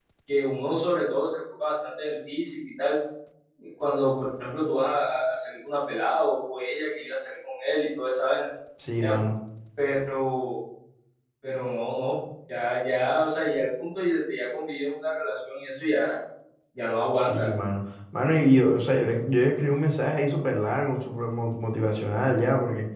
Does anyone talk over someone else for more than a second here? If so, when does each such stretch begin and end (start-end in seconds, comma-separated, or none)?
none